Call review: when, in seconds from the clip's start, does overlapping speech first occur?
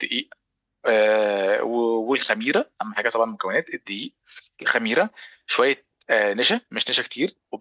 none

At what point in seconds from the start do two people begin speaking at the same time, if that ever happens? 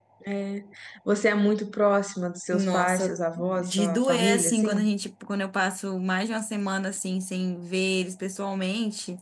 3 s

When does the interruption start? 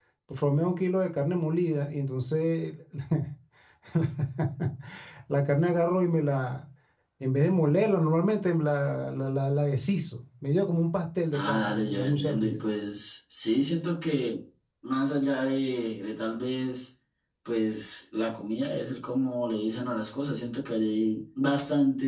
11 s

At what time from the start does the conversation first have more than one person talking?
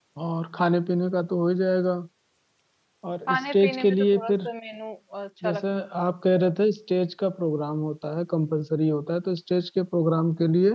3 s

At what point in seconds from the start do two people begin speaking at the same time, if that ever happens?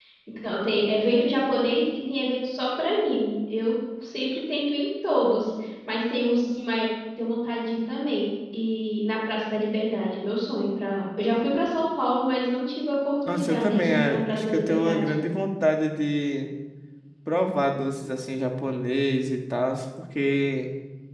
13 s

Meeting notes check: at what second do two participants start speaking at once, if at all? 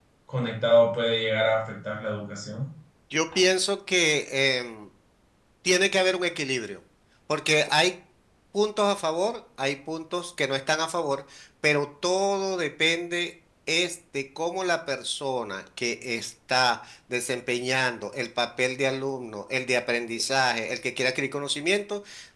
none

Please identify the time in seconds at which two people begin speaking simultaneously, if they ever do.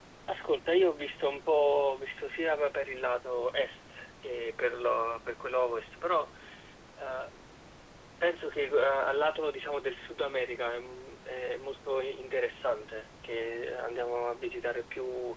none

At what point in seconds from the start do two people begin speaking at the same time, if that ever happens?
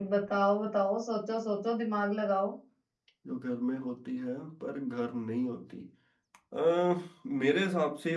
none

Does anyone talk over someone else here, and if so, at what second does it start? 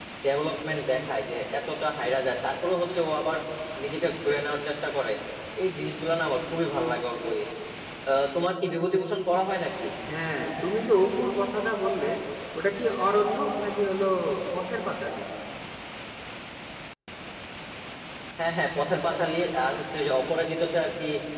none

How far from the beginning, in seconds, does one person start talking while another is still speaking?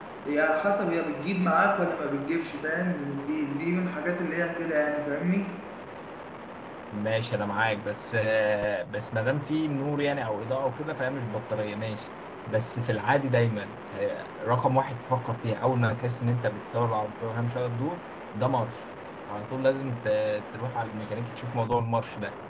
none

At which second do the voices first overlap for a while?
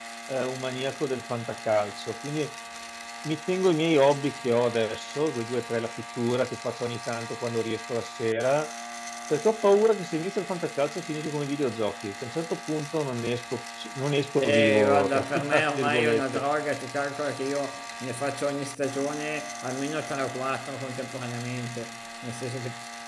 14 s

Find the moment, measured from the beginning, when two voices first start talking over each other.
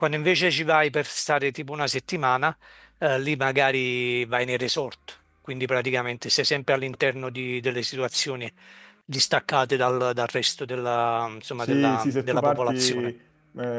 12 s

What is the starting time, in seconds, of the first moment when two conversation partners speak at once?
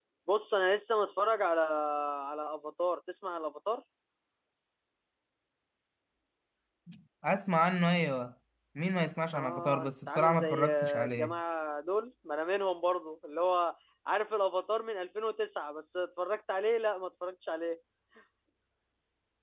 9 s

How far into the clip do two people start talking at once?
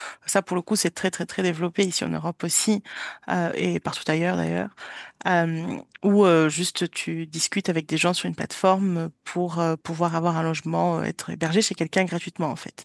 none

